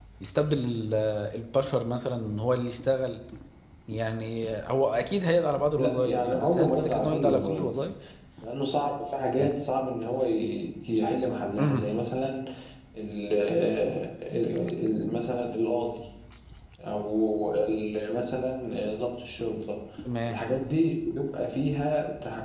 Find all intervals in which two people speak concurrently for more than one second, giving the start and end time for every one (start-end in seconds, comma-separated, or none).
5.8-7.7